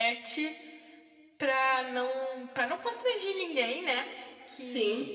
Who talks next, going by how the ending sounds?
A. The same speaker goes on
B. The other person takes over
A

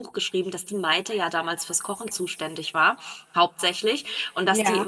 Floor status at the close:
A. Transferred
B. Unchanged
B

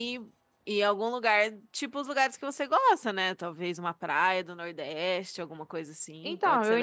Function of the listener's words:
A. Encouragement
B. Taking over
B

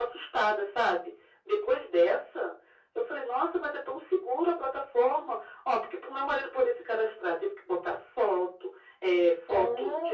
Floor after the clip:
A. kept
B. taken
A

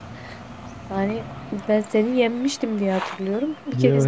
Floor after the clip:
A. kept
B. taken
B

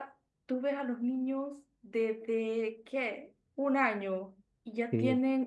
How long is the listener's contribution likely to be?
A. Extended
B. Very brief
B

